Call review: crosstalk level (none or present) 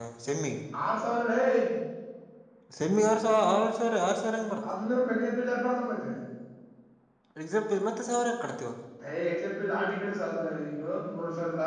none